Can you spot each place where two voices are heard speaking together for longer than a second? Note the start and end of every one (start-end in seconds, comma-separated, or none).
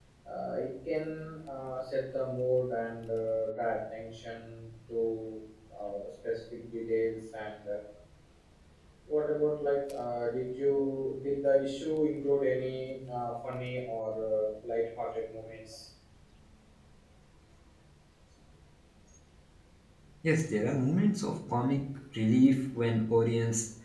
none